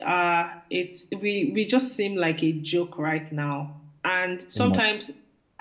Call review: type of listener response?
listening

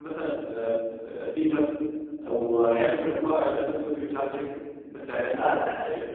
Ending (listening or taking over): taking over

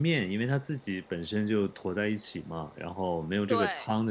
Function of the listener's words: listening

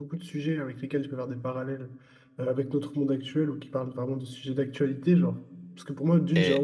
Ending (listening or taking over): listening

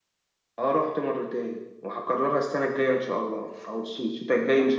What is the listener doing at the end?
taking over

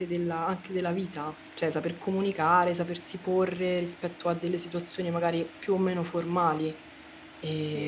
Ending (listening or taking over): listening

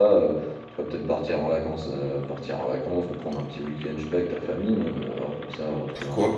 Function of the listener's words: taking over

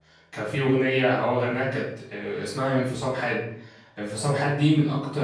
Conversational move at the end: listening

